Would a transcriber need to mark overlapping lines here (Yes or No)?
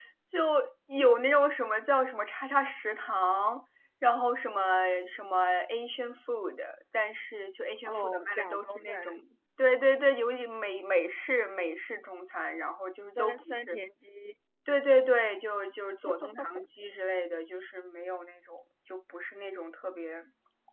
Yes